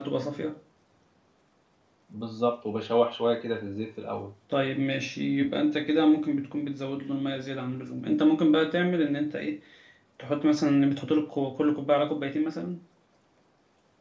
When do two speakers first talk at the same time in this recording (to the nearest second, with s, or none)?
none